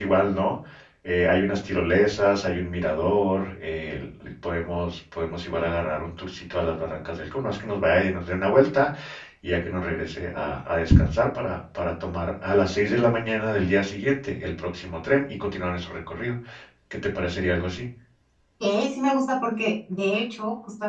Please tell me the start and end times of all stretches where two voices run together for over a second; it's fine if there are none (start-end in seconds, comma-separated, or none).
none